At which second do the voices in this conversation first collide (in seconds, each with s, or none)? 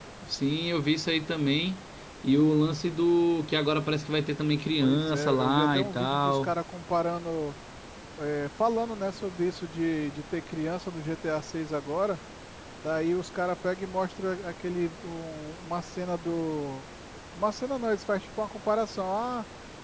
4.8 s